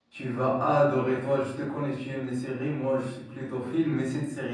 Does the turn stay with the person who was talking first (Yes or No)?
Yes